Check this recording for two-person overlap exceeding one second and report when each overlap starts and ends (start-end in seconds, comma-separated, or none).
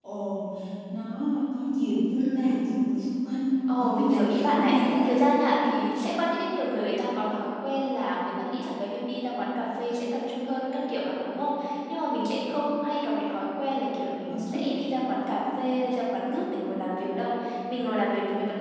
3.8-5.0